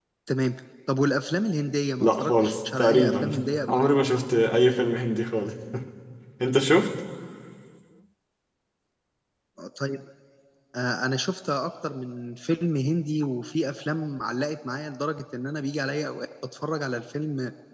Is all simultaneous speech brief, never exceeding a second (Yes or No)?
No